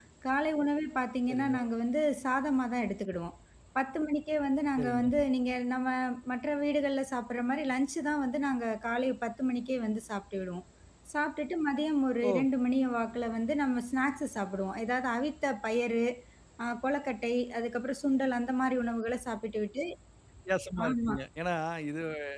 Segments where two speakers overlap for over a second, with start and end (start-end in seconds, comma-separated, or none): none